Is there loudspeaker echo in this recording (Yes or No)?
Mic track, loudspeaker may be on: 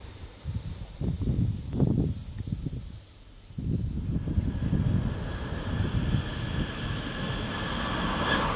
No